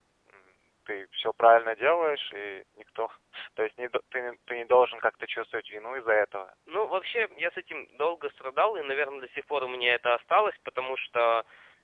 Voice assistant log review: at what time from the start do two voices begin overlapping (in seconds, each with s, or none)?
none